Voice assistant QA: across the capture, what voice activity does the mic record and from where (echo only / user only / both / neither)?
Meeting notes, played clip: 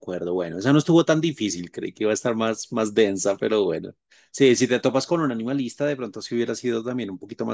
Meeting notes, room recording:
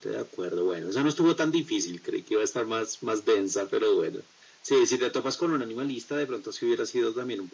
echo only